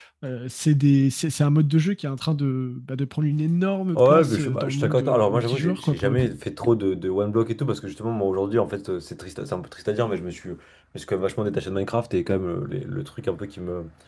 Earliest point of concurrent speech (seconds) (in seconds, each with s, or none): 4.0 s